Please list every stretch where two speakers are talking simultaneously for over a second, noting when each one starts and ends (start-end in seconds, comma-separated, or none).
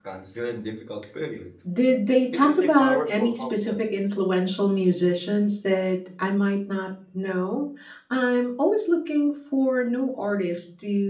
2.3-3.8